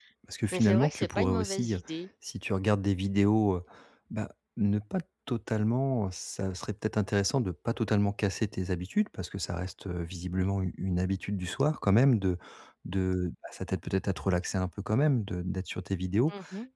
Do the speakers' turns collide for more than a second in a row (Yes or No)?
Yes